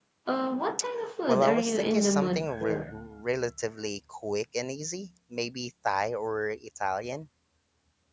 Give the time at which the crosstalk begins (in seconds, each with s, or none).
1.3 s